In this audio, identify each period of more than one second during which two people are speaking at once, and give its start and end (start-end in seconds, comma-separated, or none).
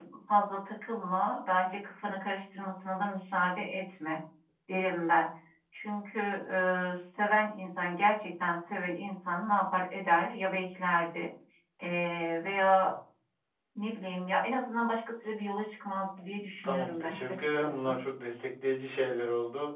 16.6-17.9